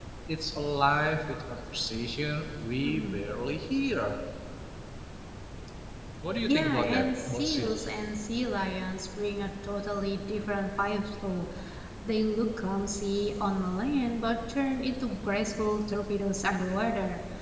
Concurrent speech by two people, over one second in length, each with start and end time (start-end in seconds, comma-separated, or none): 6.5-7.8